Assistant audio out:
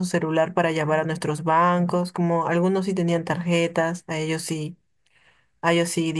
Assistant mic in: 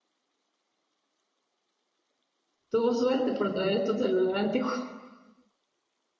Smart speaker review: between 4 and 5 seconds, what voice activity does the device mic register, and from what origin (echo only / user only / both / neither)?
user only